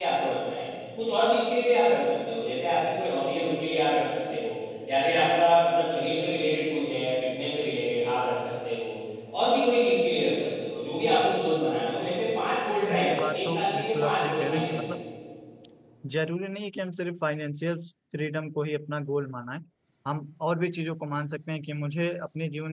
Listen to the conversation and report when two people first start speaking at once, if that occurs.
13 s

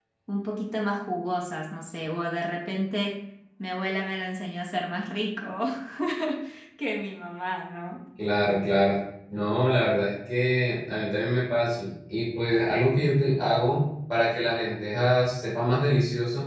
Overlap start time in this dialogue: none

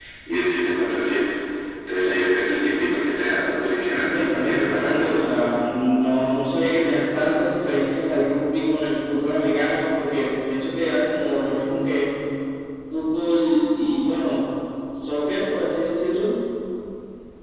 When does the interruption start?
4 s

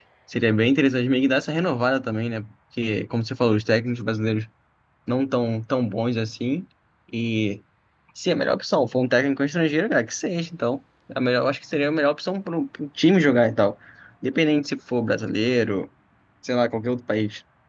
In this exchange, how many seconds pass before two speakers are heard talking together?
none

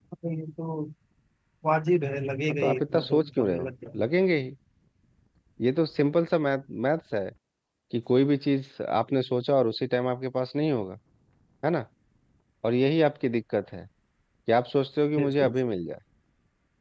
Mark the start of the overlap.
2 s

